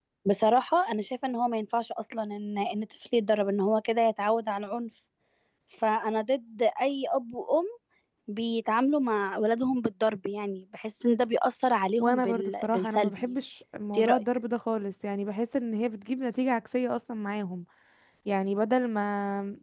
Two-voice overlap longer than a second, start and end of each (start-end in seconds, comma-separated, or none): 12.0-13.3